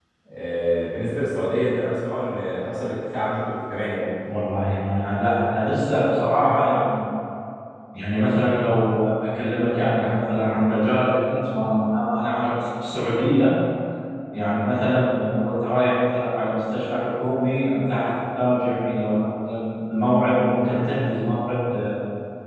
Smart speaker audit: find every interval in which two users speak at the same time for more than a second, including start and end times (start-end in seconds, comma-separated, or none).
none